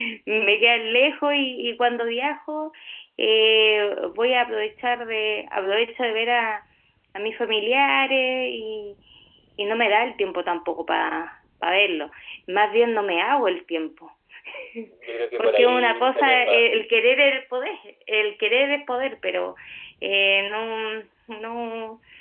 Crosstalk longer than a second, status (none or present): present